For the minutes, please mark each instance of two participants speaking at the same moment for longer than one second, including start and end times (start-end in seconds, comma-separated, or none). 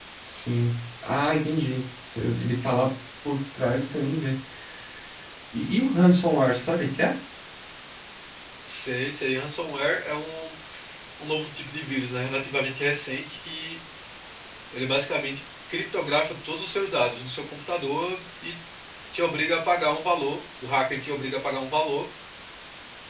none